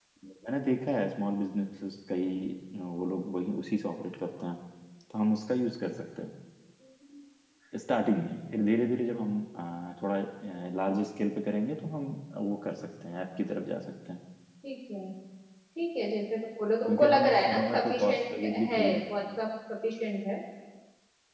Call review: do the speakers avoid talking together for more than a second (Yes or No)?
No